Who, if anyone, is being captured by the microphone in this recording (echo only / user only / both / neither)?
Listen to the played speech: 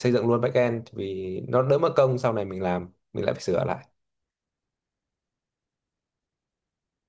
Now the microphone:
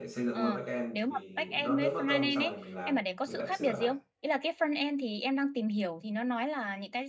both